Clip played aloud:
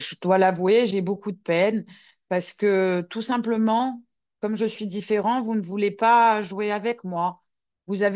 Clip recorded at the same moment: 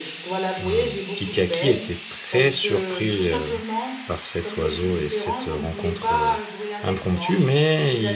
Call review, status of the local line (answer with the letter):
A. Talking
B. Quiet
A